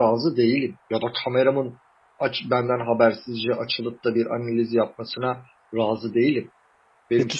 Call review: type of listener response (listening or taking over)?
taking over